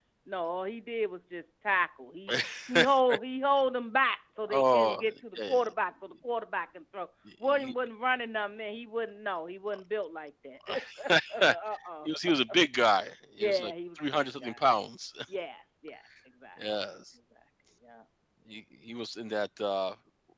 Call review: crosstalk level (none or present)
present